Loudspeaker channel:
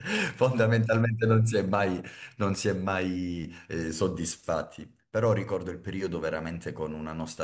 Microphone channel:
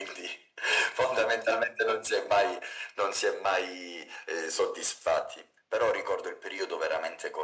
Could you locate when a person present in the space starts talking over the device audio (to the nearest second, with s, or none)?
none